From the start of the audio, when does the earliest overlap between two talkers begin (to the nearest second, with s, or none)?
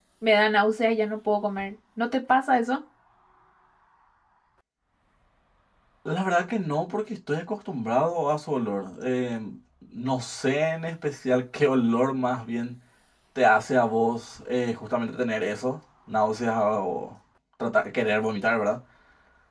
none